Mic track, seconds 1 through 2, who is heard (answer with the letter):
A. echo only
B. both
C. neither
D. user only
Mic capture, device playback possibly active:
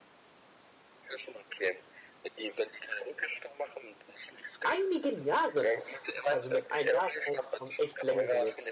A